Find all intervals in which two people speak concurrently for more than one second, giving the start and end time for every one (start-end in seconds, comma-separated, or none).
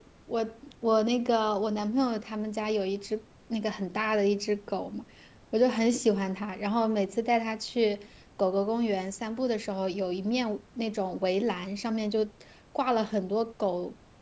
none